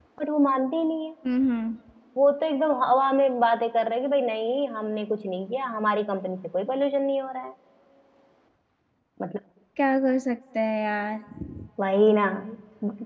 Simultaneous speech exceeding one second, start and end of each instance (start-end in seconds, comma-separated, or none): none